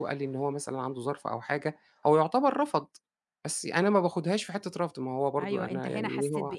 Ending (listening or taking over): taking over